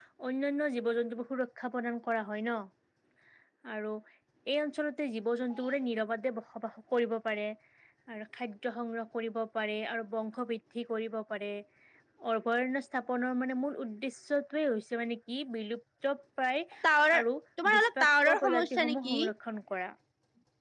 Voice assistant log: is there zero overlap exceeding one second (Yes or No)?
No